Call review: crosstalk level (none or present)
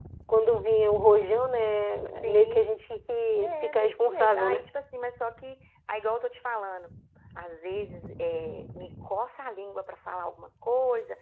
present